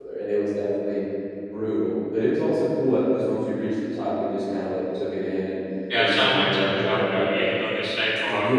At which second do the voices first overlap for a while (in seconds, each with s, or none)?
6.0 s